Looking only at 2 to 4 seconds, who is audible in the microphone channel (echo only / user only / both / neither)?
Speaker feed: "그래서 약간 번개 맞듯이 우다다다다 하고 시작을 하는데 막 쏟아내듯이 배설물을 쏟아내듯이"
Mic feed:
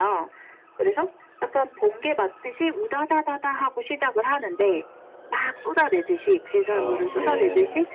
echo only